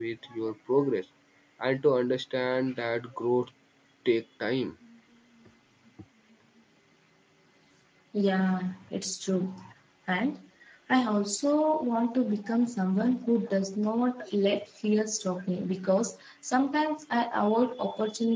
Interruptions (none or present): none